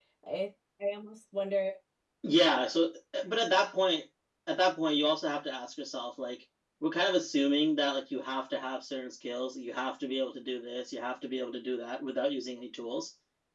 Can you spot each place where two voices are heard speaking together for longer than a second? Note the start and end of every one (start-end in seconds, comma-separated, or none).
none